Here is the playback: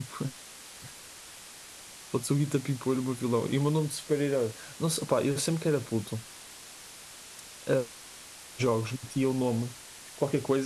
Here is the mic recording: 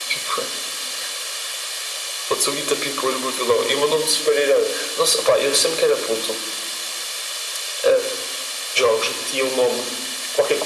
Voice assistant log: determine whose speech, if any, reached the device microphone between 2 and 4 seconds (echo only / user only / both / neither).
echo only